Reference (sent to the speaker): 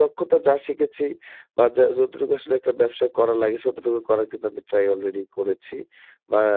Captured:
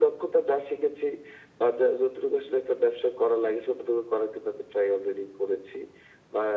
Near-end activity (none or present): none